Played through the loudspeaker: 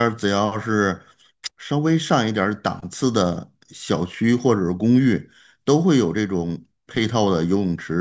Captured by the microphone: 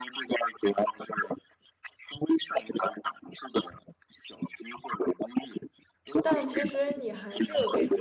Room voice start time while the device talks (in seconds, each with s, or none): 6.2 s